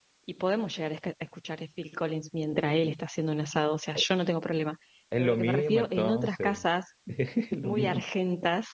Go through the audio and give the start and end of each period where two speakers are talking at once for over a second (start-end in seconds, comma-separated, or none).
5.2-6.6